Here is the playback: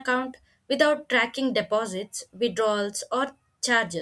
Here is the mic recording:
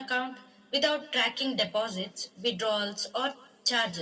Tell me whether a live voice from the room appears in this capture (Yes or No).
No